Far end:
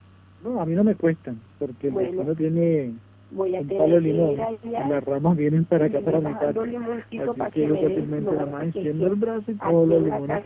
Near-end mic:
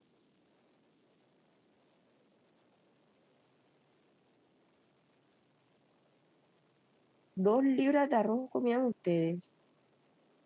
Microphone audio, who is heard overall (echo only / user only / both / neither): user only